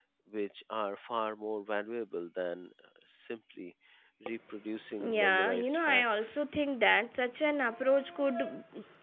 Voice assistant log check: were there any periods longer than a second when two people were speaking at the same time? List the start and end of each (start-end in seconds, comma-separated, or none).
5.0-6.4